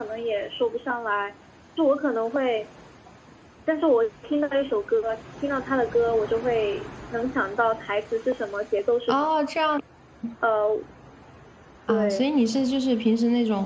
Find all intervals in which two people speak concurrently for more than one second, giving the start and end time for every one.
none

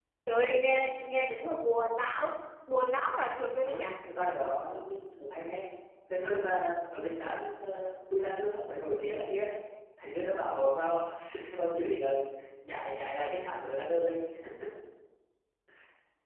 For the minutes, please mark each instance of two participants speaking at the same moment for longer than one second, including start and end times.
none

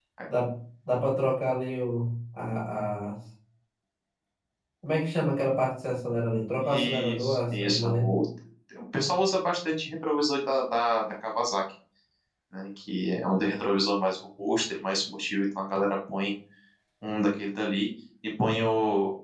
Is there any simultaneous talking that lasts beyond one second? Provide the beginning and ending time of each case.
6.6-8.2

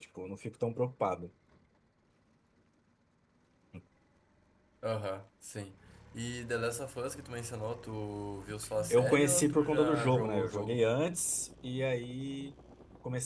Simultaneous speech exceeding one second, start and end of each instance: 8.9-10.8

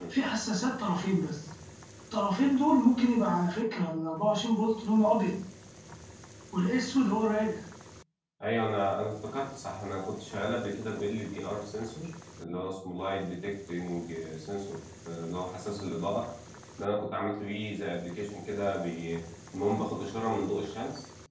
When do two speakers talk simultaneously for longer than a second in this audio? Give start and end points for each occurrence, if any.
none

